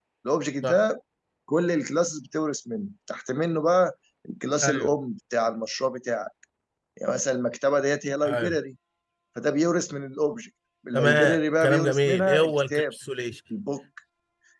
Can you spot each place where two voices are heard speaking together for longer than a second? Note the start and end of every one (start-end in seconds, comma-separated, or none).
10.9-12.9